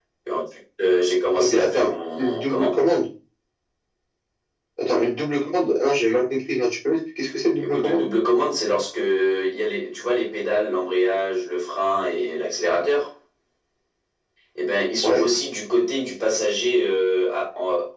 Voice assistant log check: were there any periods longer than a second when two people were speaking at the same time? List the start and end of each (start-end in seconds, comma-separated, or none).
1.4-2.8